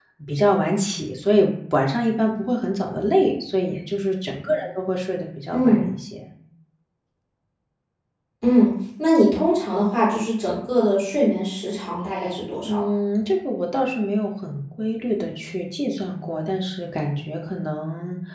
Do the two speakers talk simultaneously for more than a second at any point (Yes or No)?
No